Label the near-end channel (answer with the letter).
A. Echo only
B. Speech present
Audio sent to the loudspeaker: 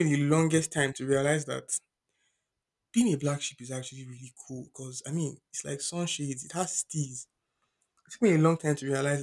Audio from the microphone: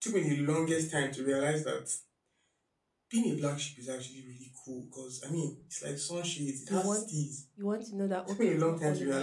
B